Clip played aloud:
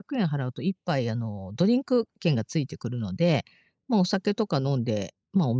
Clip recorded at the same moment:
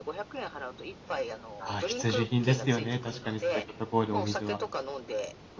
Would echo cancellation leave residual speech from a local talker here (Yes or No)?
Yes